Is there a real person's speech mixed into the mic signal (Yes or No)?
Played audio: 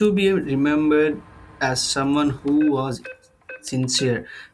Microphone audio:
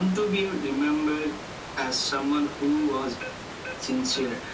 No